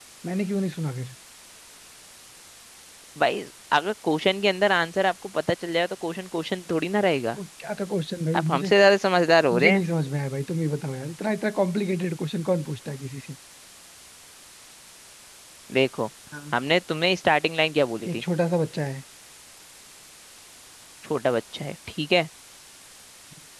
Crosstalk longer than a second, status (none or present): none